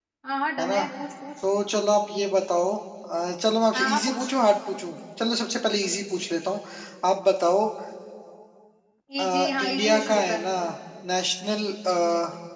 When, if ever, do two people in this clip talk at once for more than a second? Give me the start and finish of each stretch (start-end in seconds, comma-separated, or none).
9.2-10.4